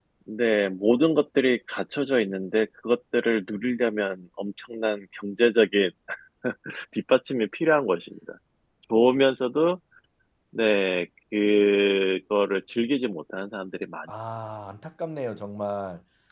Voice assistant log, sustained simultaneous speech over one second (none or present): none